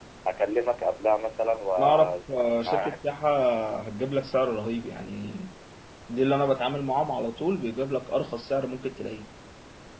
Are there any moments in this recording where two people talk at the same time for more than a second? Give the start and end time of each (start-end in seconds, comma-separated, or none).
1.8-3.0